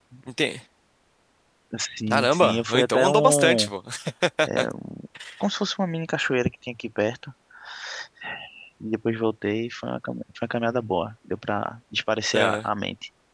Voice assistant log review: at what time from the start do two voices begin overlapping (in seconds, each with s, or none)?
2.1 s